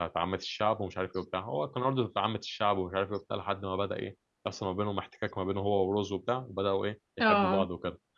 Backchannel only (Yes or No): Yes